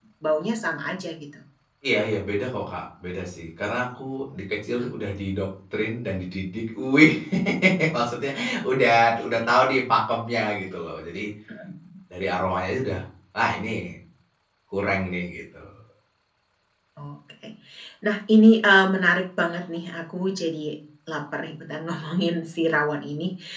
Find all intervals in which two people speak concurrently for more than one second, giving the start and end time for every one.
none

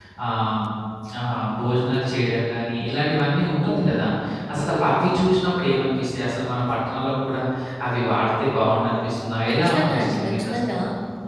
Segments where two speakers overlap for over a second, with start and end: 9.5-10.8

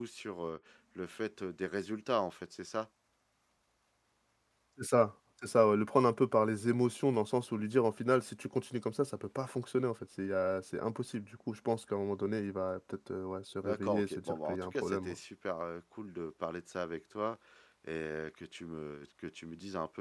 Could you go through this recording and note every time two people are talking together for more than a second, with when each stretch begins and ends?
13.6-15.2

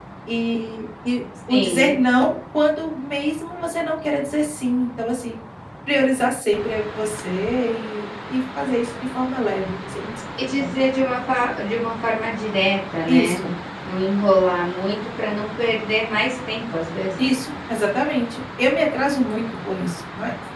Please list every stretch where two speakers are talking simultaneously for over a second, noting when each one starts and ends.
none

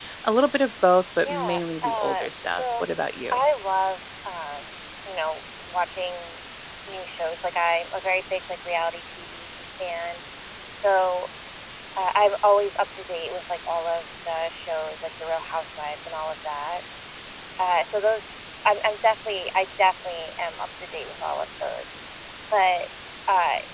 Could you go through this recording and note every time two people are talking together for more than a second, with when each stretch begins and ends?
1.2-2.8

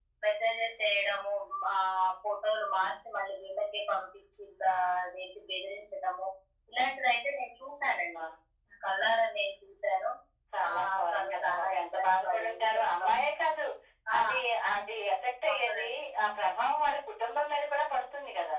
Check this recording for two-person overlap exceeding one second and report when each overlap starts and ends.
10.7-13.2

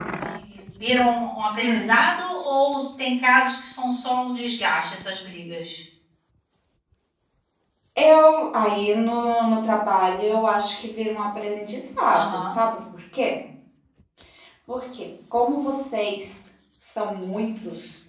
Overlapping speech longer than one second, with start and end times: none

